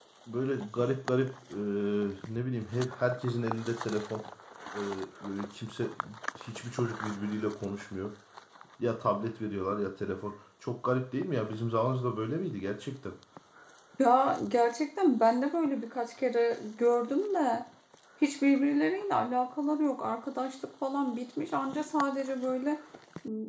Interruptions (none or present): none